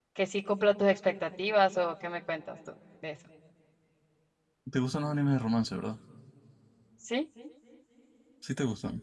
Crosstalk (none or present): none